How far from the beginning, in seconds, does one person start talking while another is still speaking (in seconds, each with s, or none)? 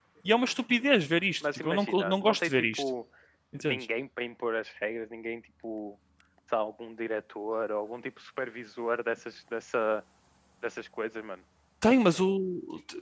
1.4 s